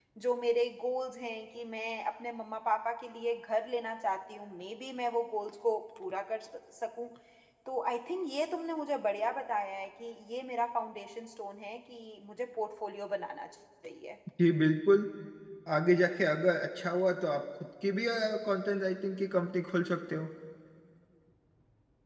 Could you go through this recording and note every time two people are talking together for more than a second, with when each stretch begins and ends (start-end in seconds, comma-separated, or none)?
none